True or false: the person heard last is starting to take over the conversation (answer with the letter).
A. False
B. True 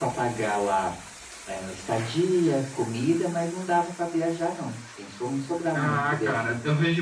B